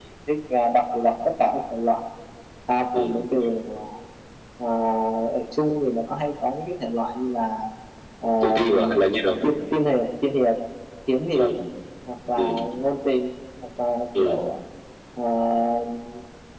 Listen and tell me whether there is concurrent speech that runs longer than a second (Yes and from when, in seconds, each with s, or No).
No